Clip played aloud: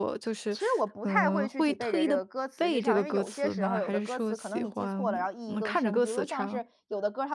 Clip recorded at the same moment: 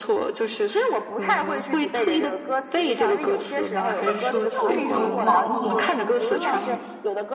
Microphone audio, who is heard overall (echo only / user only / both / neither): both